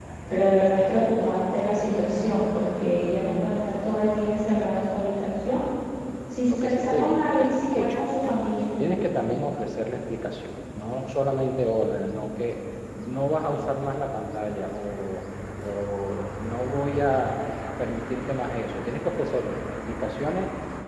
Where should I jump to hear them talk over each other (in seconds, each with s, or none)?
6.5 s